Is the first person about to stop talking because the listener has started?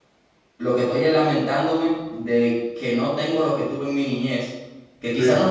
No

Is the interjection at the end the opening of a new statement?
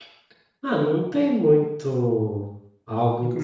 No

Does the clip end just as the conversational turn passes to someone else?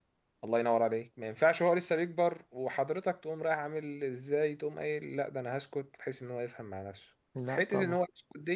No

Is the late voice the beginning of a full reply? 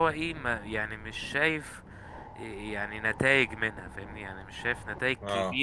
No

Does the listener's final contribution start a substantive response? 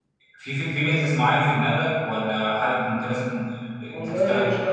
Yes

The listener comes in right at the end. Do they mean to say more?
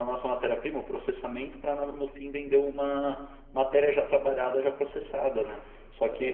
No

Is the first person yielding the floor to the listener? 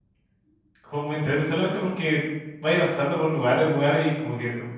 No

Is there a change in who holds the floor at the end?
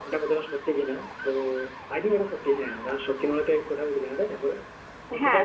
Yes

